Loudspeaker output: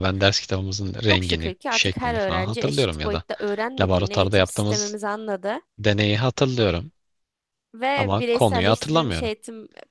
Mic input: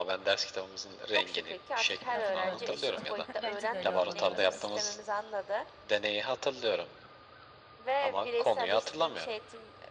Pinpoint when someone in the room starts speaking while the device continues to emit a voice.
2.1 s

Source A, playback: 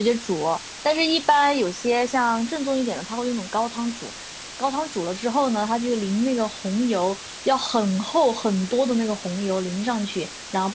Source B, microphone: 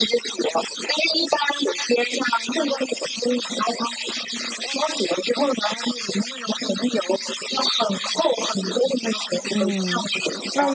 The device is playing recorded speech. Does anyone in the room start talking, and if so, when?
9.5 s

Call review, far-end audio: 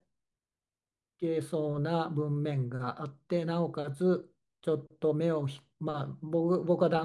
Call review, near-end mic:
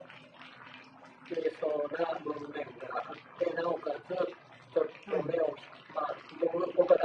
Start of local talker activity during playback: 5.0 s

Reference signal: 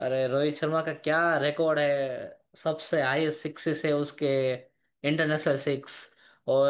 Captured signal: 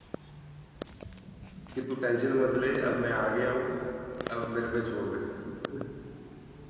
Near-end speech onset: 1.8 s

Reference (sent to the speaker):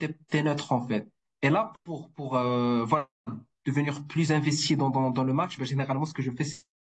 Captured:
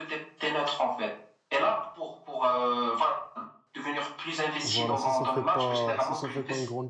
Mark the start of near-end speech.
4.6 s

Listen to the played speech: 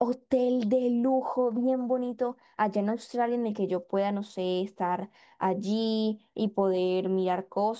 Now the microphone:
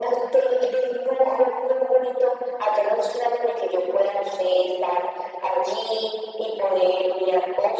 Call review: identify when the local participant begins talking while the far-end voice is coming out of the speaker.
none

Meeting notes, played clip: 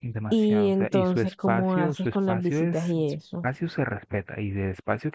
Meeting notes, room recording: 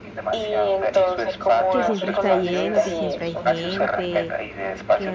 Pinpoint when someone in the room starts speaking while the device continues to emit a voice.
1.7 s

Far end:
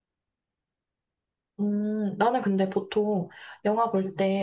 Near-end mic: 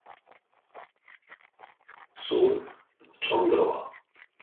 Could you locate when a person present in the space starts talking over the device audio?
2.1 s

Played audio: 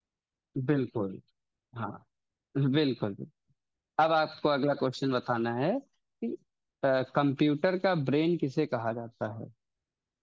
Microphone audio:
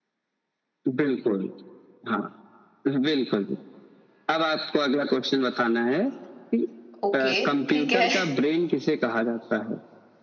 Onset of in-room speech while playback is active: 7.0 s

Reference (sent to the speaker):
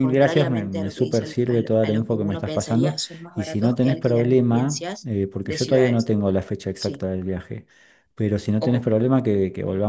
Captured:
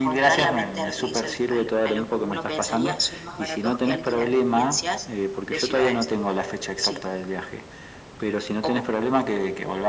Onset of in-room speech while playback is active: none

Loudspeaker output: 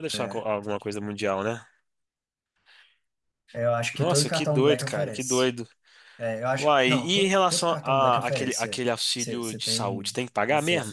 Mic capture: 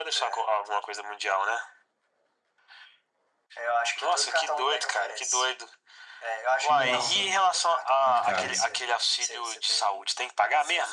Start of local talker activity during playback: 6.7 s

